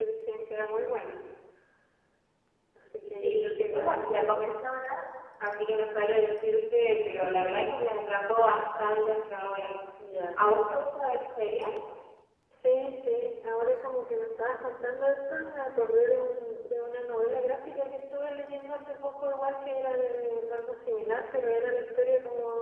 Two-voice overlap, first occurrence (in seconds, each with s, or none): 3.2 s